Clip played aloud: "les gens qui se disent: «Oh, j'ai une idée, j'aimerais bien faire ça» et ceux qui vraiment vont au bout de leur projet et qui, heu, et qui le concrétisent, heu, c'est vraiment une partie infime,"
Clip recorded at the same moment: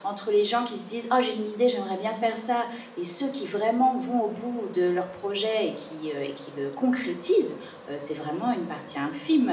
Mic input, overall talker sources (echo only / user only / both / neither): echo only